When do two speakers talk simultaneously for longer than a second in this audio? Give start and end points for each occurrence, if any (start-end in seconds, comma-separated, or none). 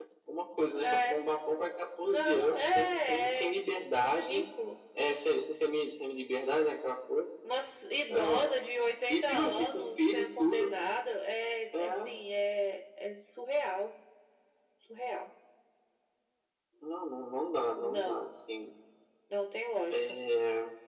2.0-3.5, 9.1-10.7